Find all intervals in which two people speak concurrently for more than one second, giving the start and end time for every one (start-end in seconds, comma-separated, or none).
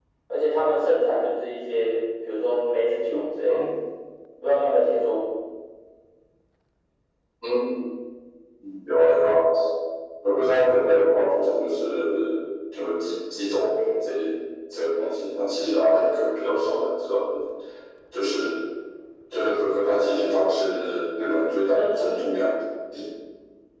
none